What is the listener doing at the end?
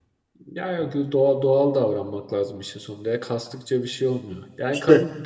listening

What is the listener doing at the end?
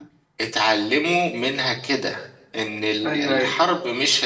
listening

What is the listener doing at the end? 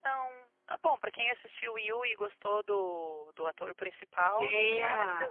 taking over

